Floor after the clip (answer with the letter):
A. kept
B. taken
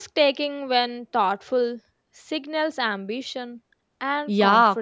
B